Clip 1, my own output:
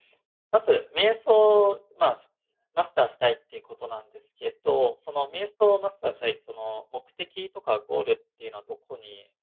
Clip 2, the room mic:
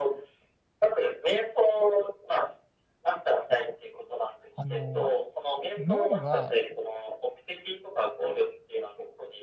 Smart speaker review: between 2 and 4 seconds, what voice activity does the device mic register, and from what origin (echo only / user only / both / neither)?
echo only